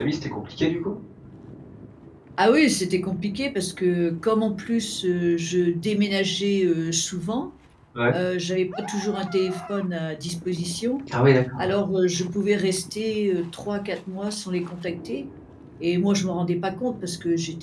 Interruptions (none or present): none